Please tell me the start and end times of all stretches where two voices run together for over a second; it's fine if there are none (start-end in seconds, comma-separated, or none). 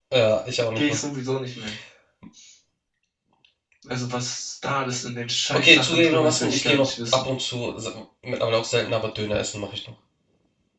5.5-7.3